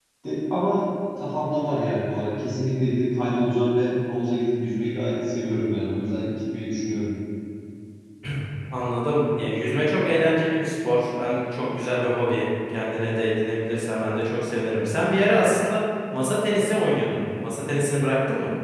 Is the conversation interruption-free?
Yes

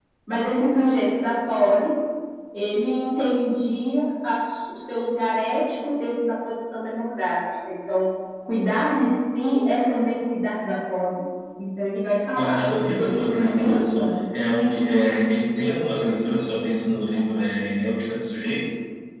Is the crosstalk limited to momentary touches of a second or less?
No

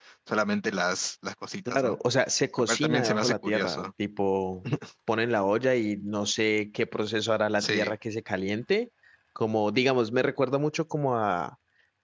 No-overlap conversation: No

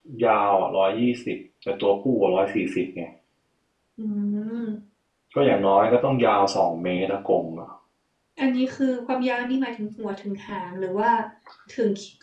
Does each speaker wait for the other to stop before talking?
Yes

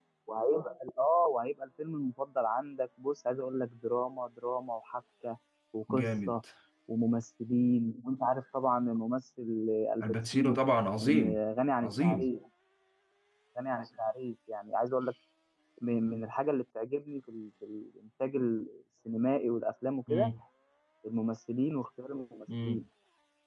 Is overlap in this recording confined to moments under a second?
Yes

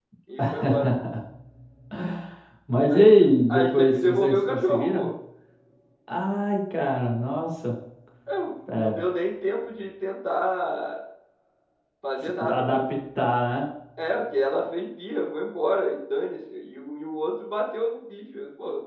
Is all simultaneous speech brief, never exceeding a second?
No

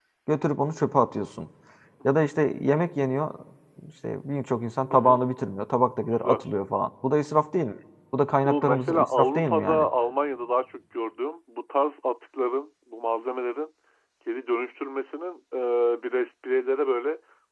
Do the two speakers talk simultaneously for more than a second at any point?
Yes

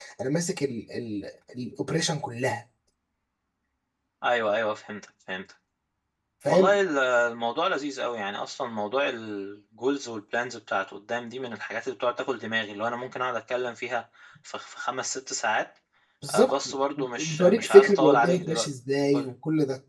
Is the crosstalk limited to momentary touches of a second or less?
No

